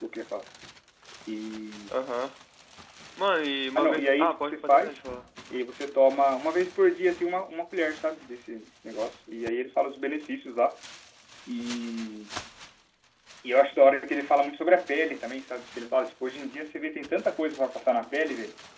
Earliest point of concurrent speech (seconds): 3.8 s

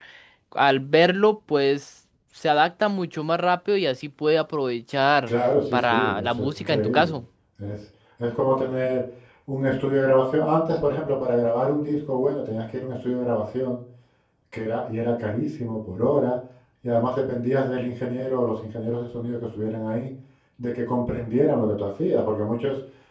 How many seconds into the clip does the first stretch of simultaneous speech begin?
5.9 s

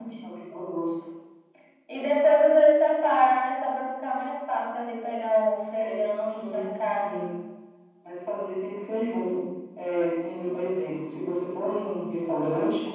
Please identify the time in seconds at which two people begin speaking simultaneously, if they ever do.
5.7 s

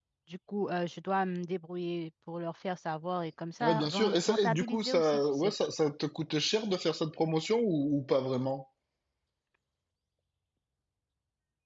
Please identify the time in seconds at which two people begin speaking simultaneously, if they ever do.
3.6 s

